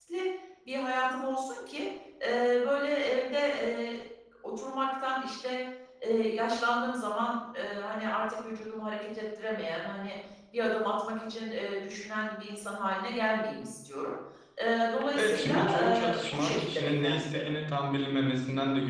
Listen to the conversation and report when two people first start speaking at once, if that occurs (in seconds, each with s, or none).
15.2 s